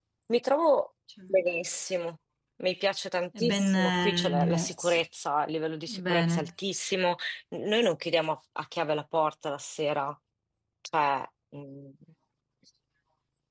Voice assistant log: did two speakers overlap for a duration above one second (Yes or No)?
Yes